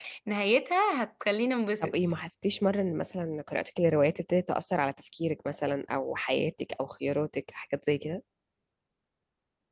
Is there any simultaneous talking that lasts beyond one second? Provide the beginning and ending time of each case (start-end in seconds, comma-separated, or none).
none